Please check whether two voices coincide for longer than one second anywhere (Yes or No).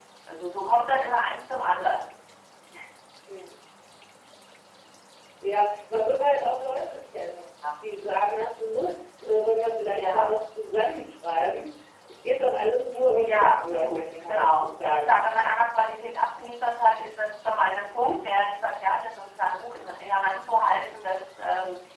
Yes